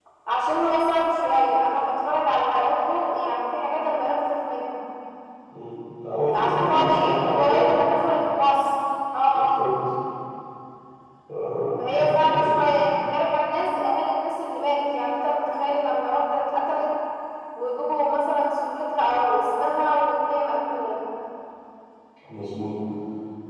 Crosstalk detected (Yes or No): Yes